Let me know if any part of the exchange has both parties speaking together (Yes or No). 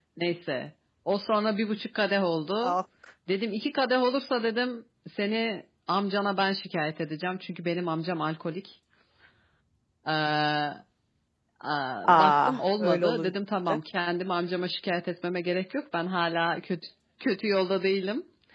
Yes